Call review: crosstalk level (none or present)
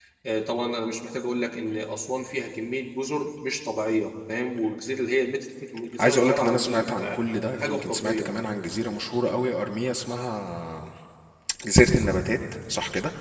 present